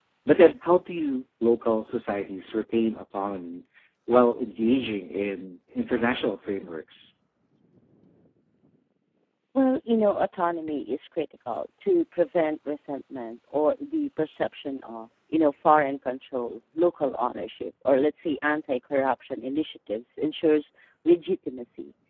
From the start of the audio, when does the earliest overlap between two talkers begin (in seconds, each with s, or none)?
none